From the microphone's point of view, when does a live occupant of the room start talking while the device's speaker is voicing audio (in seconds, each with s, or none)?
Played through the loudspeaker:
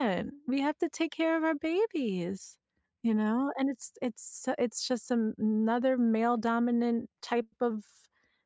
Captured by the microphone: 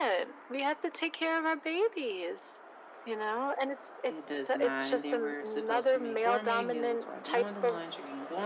4.1 s